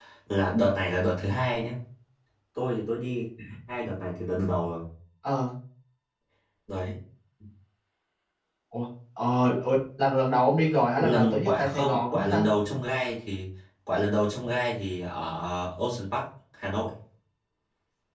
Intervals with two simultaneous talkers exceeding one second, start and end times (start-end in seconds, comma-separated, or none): 11.0-12.4